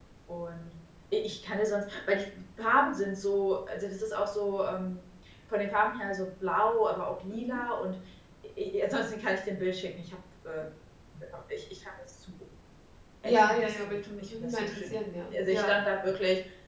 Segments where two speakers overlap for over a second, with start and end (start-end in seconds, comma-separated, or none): 13.2-14.9